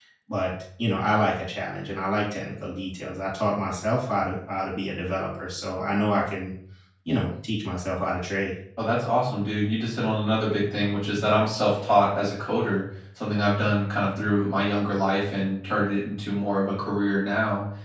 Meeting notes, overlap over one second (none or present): none